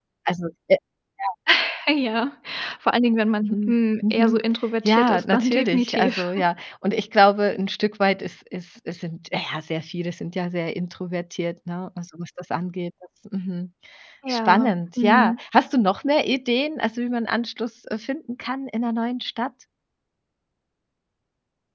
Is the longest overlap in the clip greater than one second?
Yes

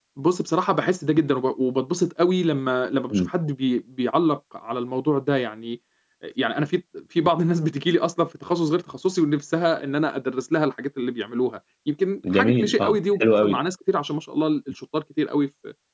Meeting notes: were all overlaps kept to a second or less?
No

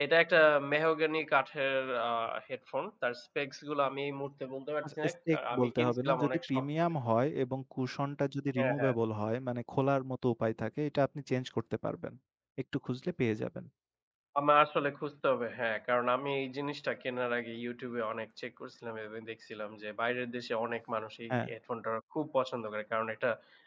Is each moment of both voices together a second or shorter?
No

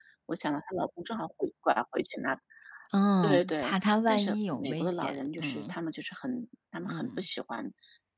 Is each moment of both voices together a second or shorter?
No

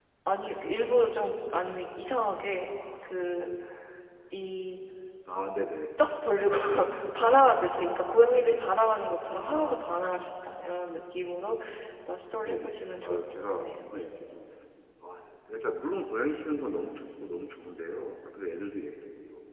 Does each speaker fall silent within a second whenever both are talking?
No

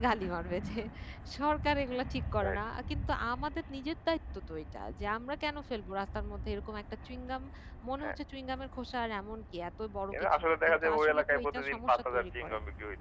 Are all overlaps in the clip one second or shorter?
No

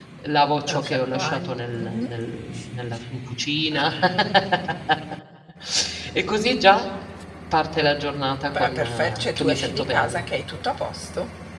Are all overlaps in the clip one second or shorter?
No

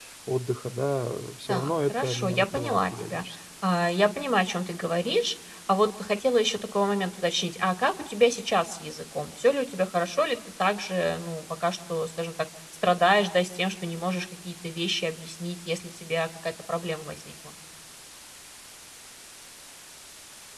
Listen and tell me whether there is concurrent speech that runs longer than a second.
Yes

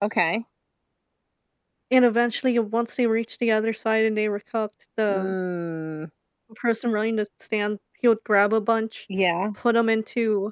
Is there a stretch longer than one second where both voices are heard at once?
No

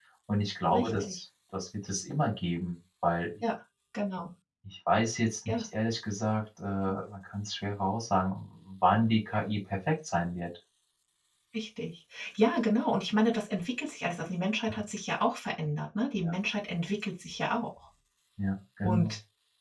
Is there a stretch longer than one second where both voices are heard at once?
No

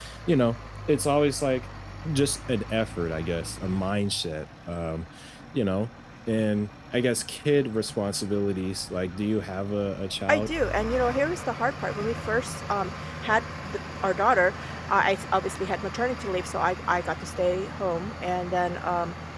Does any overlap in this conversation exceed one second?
No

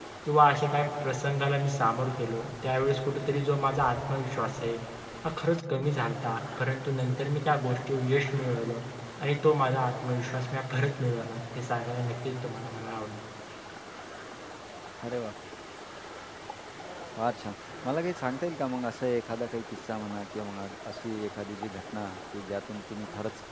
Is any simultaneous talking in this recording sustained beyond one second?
No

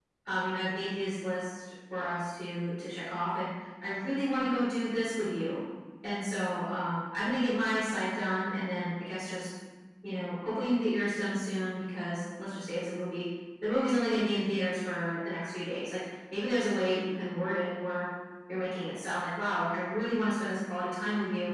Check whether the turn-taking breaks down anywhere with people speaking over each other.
No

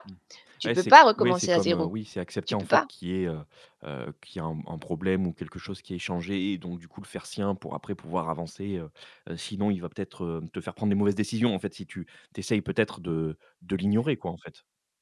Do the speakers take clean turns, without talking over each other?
No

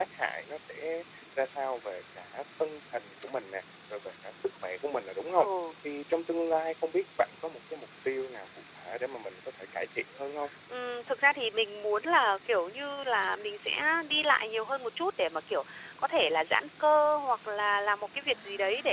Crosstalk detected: No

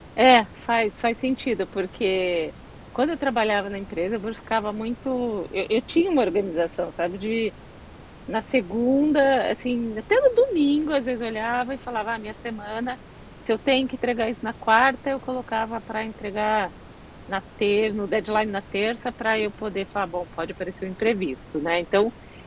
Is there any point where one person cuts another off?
No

